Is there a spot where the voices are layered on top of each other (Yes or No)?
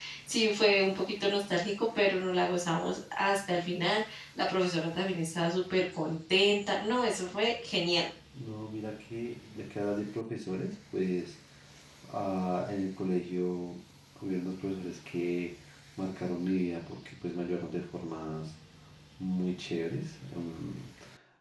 No